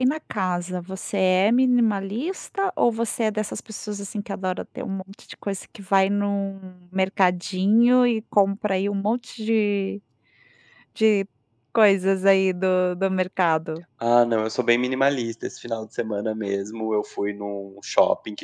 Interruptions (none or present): none